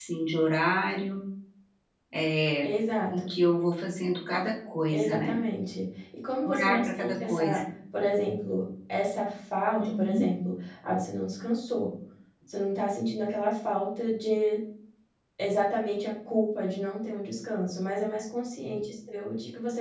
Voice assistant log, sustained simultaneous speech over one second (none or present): present